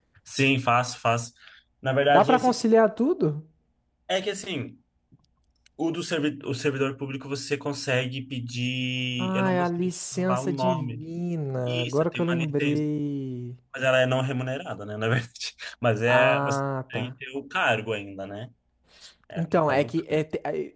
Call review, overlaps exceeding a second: present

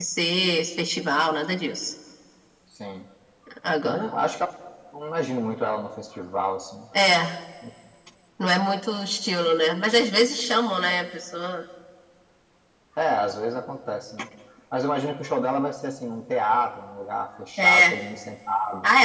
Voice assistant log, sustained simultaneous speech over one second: none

